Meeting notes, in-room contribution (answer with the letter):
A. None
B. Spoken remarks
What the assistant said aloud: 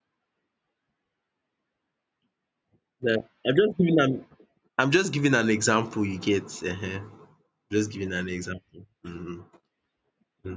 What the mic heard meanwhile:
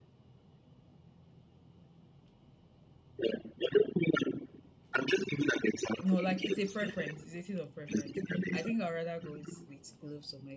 B